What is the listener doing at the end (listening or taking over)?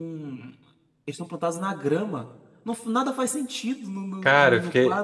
taking over